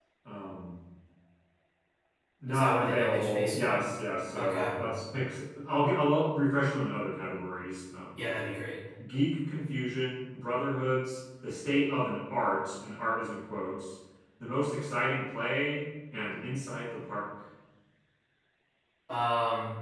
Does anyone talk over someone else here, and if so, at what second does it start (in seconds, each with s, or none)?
2.5 s